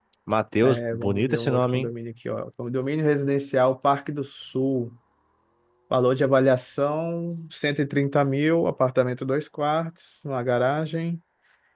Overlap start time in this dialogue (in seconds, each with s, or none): 0.6 s